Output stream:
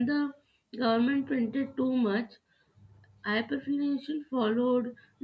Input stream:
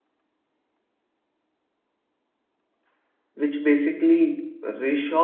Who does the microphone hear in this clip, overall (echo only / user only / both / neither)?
user only